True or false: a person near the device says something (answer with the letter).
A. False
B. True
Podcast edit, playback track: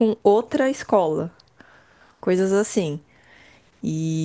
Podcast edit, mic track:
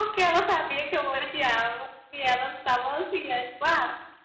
B